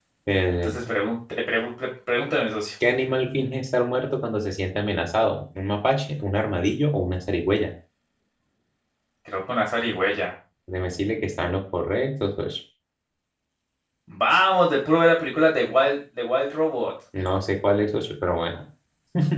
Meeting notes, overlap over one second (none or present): none